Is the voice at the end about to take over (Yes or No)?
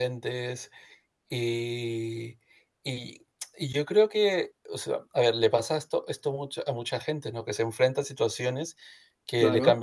No